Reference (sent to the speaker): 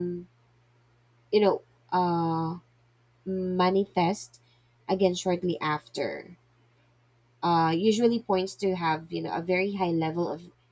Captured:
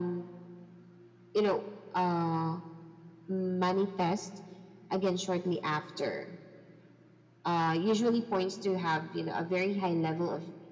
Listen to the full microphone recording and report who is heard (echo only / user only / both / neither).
echo only